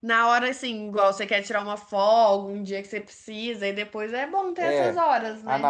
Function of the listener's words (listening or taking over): taking over